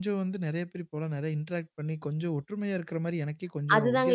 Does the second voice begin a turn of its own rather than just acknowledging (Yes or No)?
Yes